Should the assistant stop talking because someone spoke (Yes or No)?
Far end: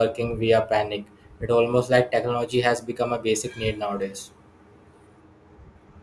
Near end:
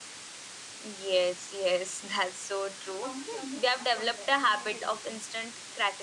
Yes